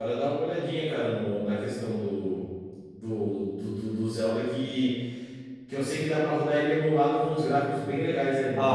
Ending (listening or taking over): taking over